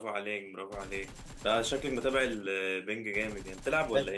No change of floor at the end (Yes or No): No